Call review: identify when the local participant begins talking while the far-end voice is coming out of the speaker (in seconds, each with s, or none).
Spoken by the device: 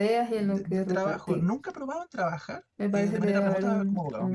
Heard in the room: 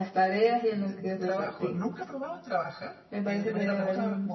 none